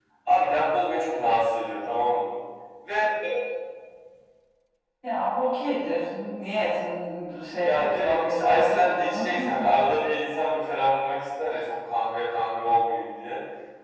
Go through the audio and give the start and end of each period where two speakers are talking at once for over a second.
7.6-9.5

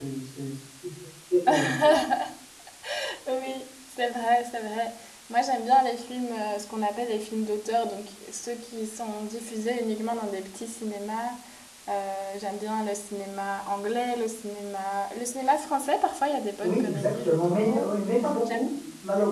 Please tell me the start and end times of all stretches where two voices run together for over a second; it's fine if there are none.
16.6-17.9

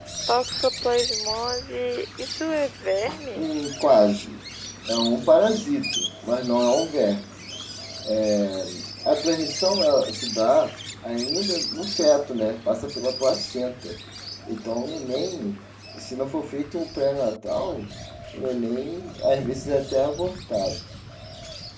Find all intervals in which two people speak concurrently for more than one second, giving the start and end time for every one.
none

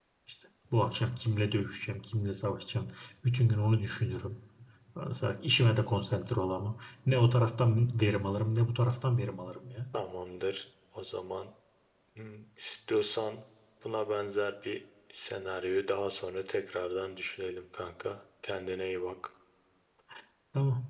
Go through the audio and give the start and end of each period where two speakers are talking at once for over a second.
none

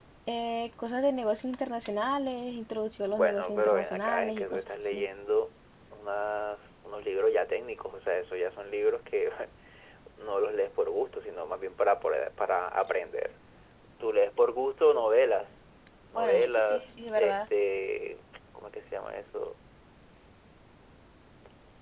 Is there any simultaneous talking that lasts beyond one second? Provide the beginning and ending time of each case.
3.2-5.0, 16.1-17.4

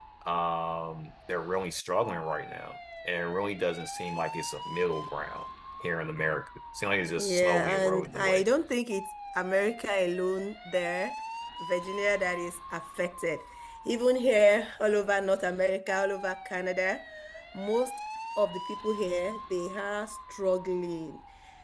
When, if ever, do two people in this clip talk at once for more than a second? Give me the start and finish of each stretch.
7.2-8.4

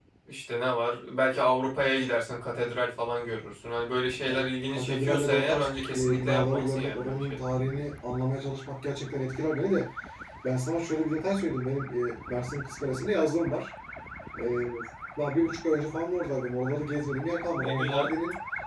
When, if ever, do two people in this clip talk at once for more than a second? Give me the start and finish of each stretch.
4.2-7.5

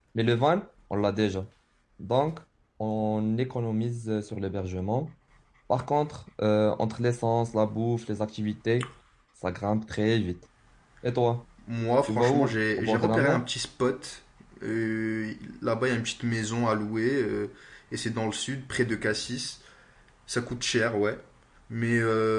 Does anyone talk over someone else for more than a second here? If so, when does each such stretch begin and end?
12.1-13.5

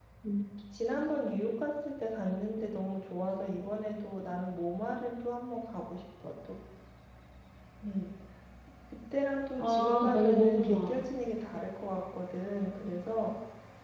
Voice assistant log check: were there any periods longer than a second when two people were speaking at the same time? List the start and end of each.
9.6-11.0

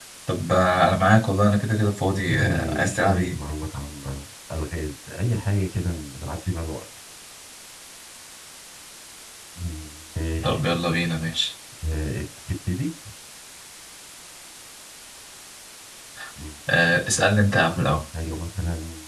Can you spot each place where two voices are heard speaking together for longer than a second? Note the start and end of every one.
2.2-3.4

